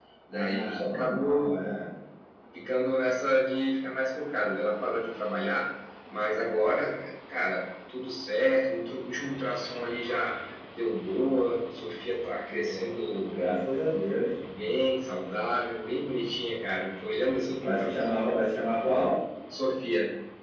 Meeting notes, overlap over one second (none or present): present